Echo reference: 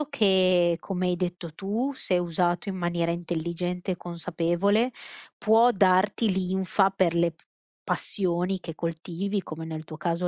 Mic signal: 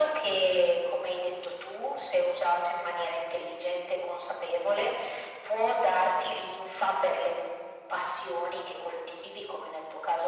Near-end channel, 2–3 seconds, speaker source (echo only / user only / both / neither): echo only